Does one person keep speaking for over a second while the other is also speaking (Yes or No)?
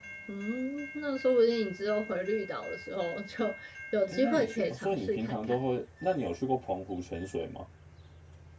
Yes